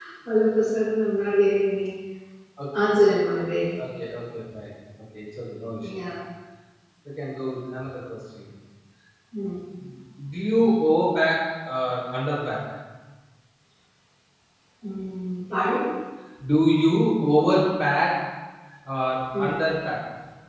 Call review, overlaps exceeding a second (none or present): none